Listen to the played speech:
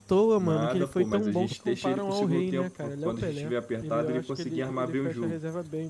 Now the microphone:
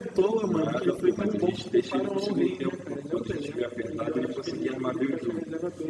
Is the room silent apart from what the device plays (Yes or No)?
Yes